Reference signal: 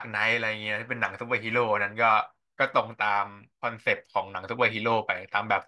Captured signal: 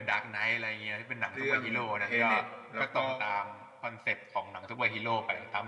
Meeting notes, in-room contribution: present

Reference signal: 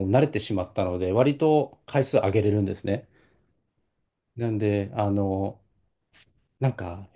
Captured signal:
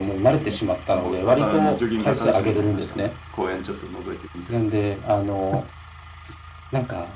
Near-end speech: present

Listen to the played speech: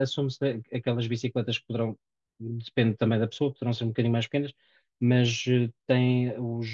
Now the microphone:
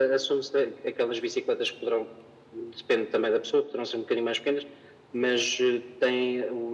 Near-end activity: none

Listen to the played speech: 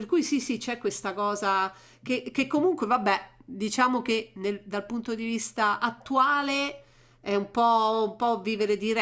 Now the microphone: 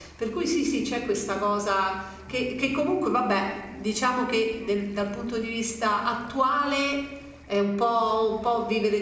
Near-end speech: none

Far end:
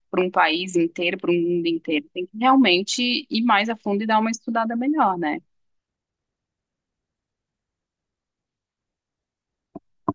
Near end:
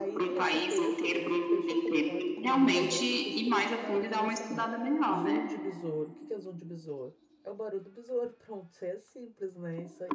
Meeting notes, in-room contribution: present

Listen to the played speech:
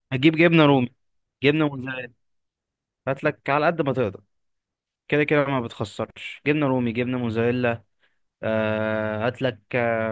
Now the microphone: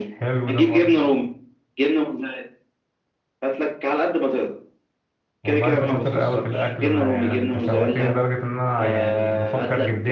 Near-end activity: present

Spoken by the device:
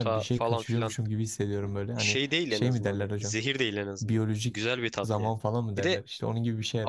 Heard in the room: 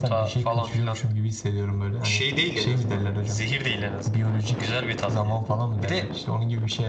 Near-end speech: none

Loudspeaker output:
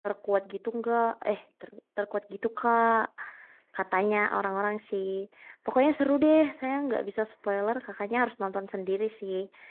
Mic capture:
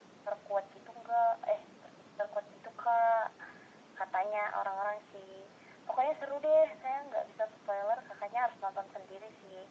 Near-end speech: none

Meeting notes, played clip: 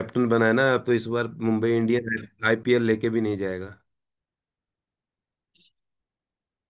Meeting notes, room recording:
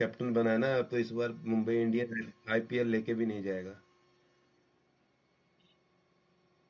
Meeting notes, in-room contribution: none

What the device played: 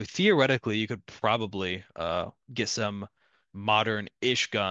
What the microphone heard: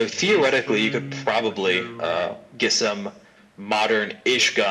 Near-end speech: present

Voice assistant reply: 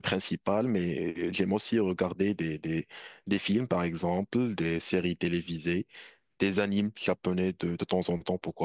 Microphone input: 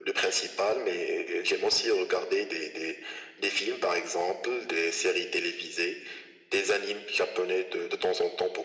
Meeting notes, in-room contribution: none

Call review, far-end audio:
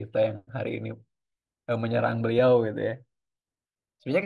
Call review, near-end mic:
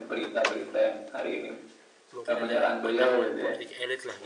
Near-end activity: present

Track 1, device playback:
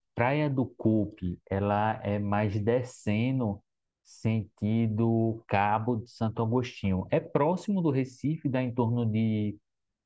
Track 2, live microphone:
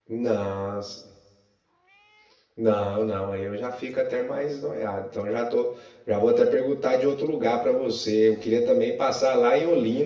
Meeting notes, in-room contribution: present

